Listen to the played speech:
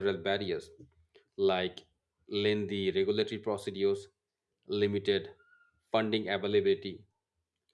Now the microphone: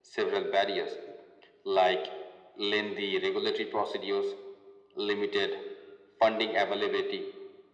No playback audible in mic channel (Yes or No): No